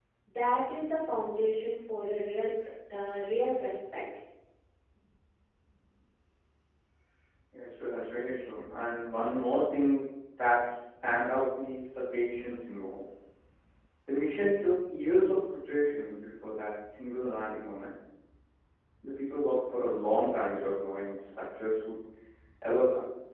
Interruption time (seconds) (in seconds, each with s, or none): none